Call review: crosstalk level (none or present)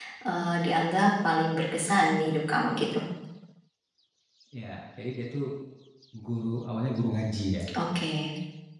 none